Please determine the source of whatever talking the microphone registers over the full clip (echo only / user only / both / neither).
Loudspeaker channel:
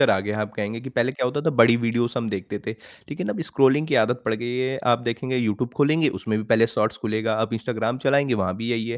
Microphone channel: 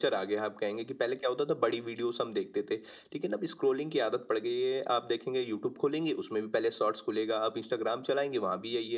echo only